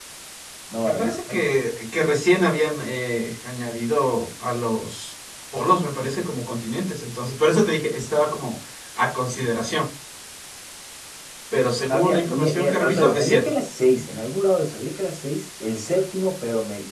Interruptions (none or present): present